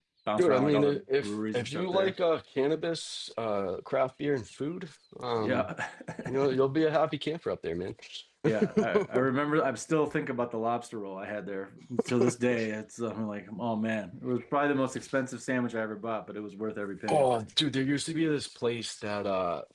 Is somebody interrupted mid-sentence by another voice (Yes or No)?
Yes